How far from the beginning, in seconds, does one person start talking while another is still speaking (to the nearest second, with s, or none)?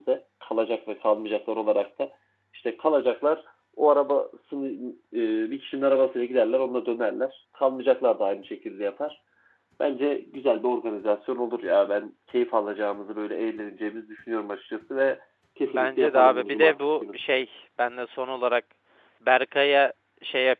16 s